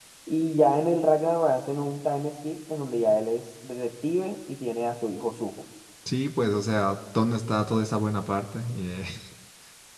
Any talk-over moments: No

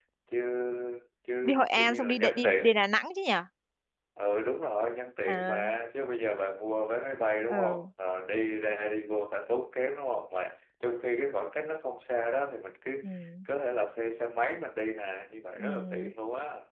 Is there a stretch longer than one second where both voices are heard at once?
Yes, from 1.4 s

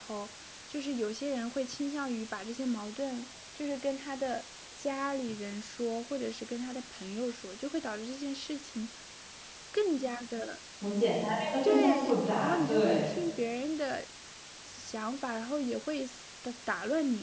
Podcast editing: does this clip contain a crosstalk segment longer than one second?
Yes, from 11.6 s

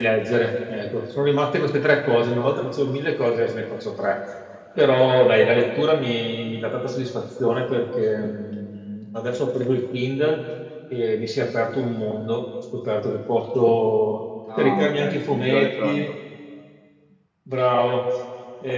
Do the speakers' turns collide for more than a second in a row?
Yes, from 14.5 s

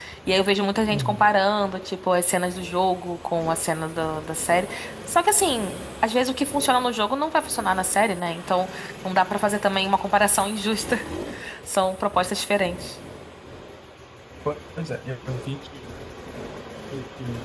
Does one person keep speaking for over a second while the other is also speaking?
No

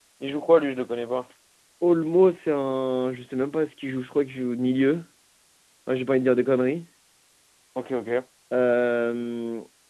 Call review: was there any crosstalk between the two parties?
No

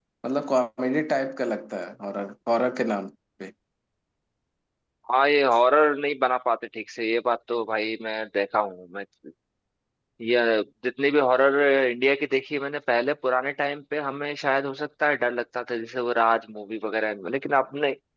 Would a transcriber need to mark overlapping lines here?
No

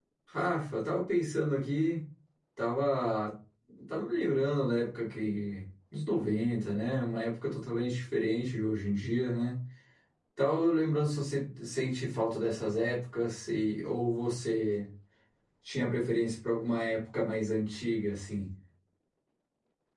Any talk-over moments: No

